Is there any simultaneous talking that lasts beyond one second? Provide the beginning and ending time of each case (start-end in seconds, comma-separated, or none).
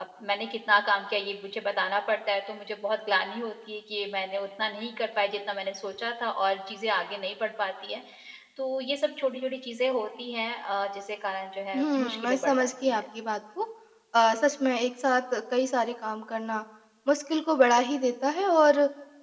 11.7-13.0